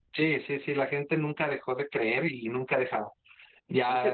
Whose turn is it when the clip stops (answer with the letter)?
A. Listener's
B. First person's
A